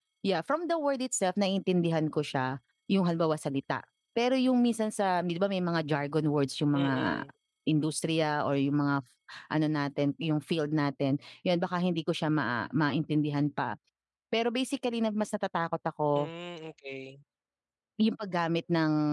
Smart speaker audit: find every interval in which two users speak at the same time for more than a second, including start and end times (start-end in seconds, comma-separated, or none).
none